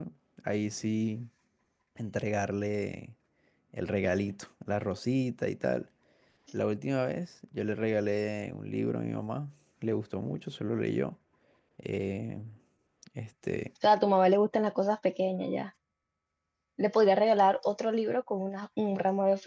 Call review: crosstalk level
none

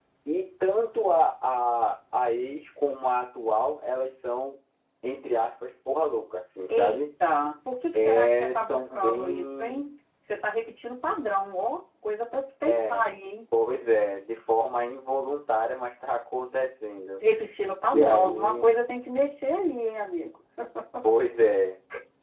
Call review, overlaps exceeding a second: present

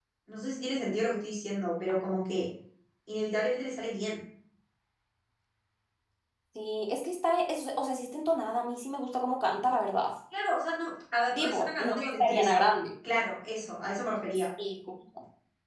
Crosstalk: present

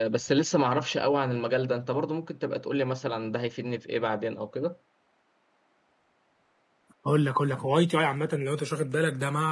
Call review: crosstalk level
none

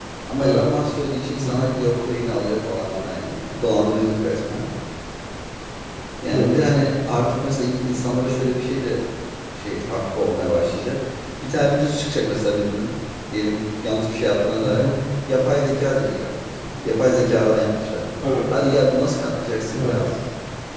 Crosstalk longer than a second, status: none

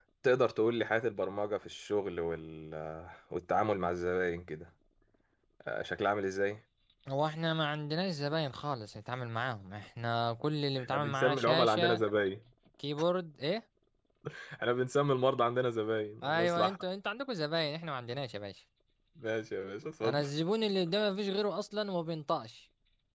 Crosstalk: present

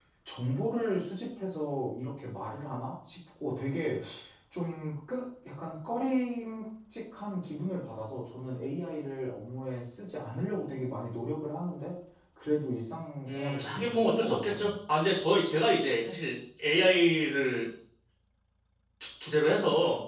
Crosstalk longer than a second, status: present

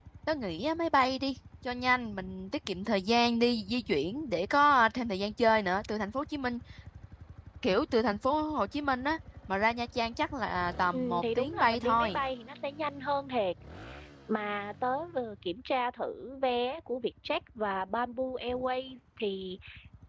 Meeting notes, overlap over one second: present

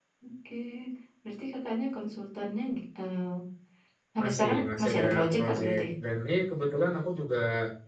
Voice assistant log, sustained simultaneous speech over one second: present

